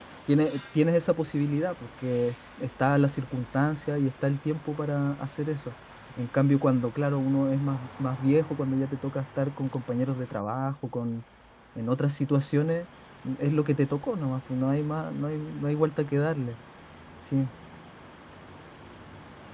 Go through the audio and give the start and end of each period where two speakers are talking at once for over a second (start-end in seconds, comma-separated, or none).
none